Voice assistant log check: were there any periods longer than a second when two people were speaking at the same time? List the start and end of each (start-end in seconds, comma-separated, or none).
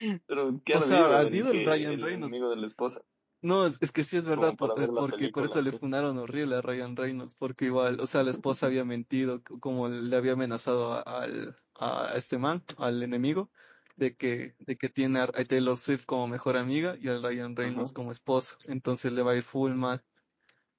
0.7-2.4, 4.3-5.6